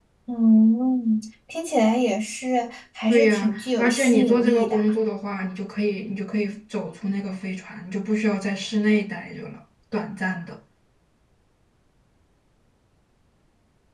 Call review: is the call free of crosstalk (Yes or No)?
No